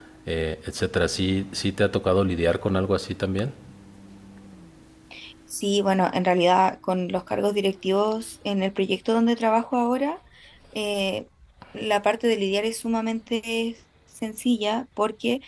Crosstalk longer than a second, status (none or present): none